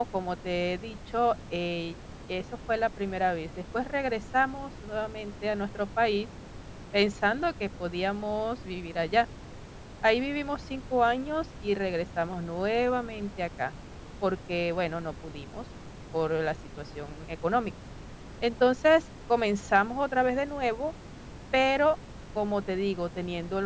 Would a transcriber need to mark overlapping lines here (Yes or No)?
No